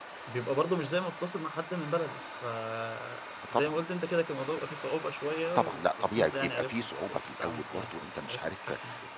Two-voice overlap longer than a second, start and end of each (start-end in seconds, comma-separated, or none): 5.5-7.8